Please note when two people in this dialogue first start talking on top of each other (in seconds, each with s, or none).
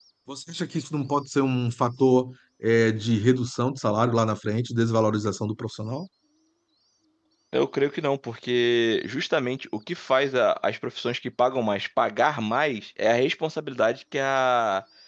none